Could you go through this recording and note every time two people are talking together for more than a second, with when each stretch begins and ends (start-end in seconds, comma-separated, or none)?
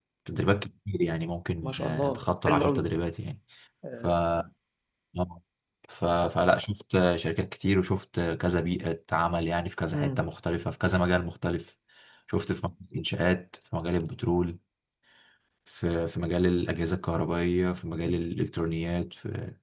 1.6-2.9